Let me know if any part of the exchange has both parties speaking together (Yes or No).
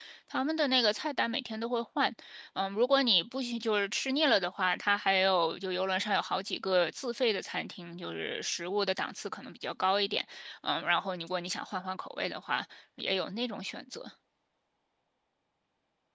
No